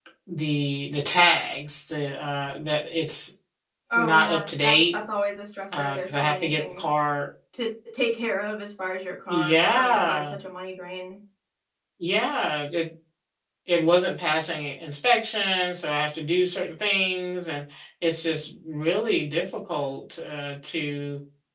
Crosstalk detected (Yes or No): Yes